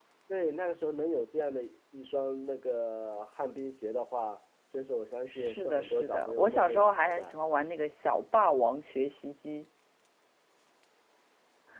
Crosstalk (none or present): present